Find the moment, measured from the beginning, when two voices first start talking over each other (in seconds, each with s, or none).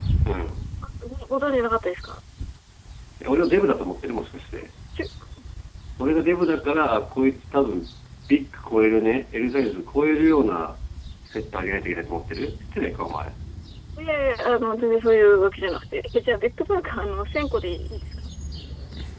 none